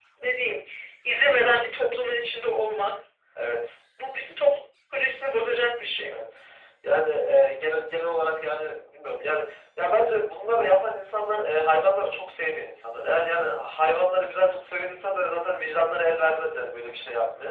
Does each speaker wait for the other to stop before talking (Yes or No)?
Yes